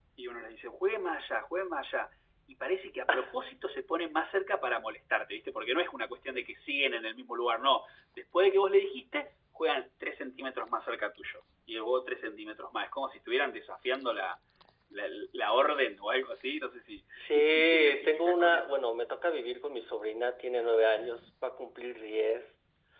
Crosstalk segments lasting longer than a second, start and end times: 17.1-18.8

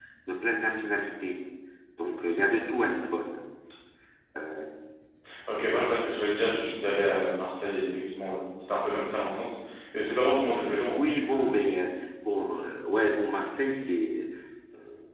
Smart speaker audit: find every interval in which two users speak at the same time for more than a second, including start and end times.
none

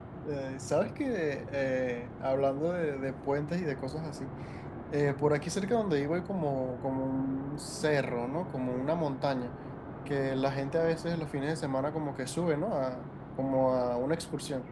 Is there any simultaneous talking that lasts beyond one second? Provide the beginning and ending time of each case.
none

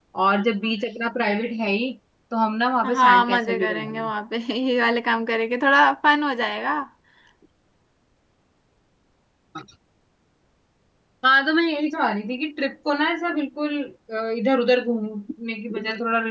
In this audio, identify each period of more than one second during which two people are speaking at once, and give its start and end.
2.8-4.1

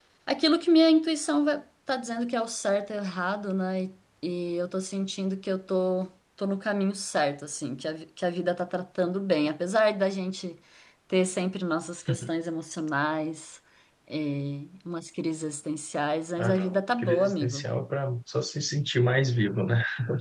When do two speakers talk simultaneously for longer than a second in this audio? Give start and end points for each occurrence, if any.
16.4-17.7

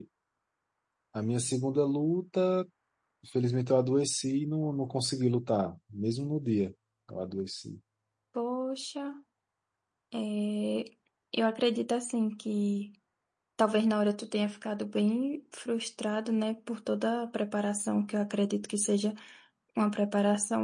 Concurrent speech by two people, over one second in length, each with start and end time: none

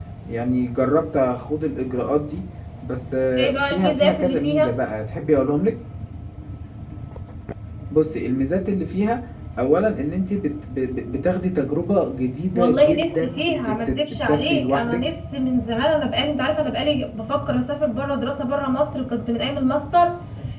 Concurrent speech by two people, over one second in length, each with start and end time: 3.4-4.8, 12.5-15.0

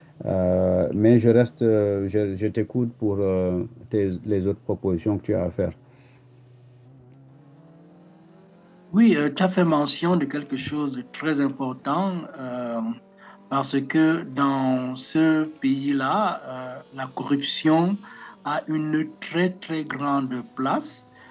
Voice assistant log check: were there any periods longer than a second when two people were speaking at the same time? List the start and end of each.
none

